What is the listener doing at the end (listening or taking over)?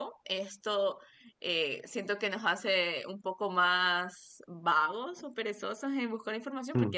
listening